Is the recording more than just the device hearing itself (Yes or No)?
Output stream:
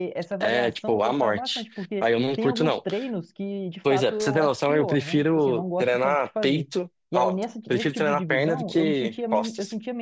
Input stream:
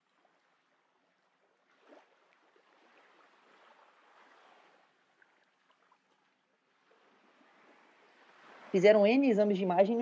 Yes